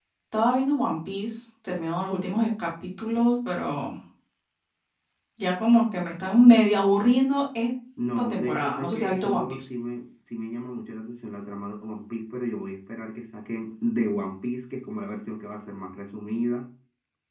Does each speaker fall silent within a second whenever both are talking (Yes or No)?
No